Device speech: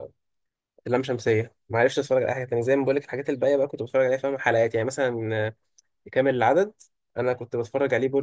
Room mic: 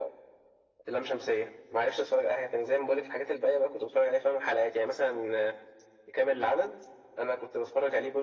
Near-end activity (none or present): none